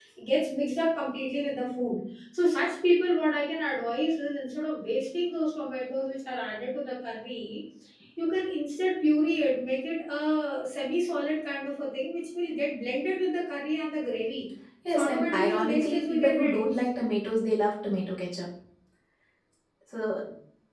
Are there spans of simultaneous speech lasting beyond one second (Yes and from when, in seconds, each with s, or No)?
Yes, from 14.9 s